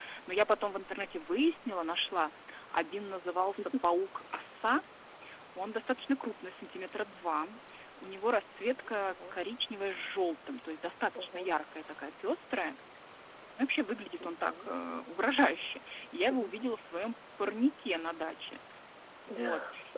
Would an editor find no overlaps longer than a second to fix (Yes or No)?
Yes